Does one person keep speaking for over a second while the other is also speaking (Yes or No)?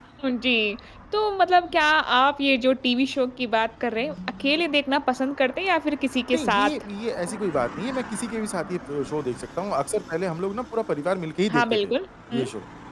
No